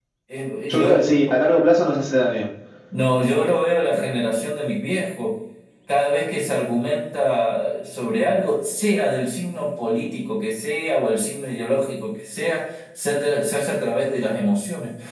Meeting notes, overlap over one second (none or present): none